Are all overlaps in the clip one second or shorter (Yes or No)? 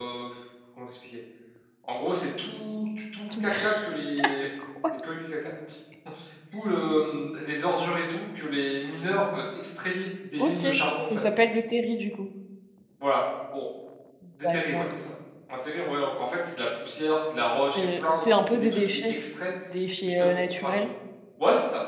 No